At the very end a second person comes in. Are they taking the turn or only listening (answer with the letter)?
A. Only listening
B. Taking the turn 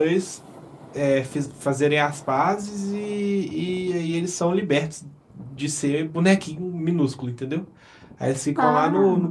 A